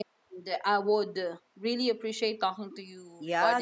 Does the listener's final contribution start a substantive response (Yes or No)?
Yes